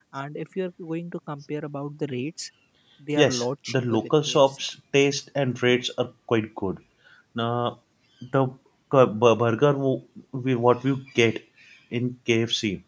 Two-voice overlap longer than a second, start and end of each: 3.2-4.6

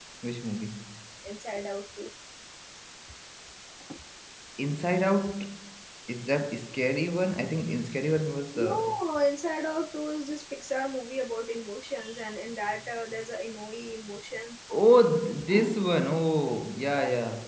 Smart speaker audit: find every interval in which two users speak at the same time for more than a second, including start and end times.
none

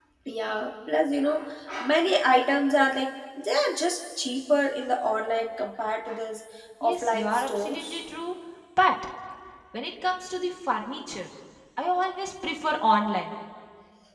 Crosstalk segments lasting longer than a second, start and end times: 6.8-8.0

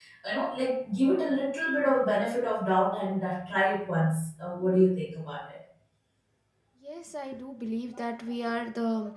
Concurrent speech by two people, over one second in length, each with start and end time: none

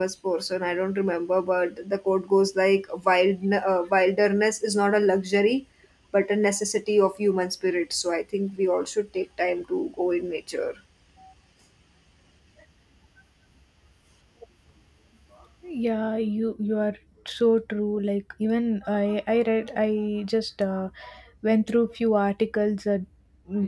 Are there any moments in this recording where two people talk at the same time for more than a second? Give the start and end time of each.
none

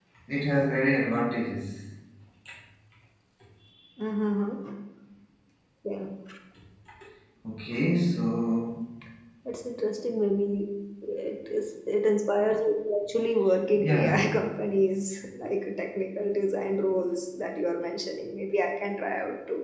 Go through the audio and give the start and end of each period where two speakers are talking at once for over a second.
none

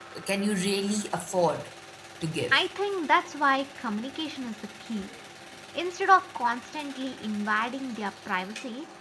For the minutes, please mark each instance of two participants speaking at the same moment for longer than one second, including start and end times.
none

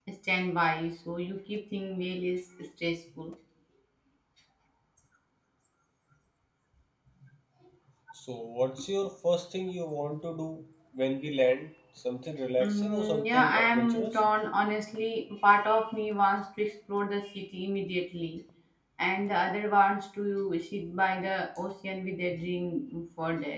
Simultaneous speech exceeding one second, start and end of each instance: 12.6-14.2

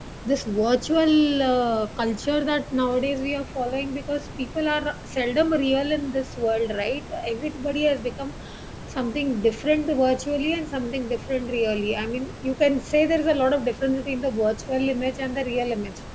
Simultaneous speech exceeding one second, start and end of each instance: none

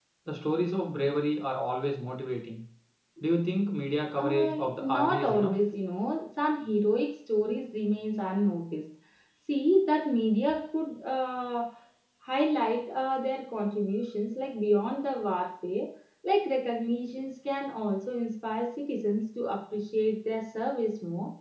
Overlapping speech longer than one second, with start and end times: 4.2-5.5

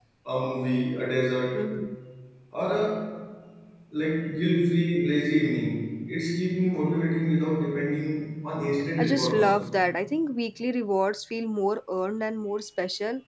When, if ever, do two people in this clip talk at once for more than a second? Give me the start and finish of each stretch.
none

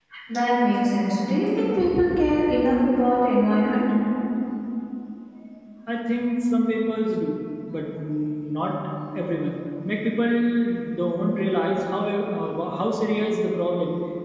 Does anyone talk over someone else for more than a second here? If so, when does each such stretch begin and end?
none

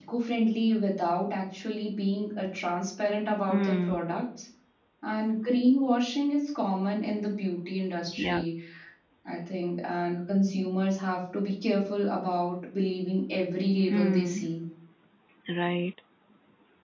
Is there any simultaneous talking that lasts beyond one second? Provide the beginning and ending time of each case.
none

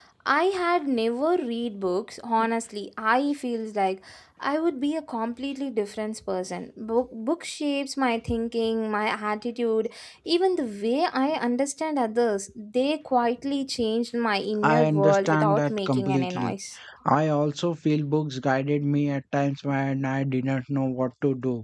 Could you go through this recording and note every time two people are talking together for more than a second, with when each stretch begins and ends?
14.6-16.5

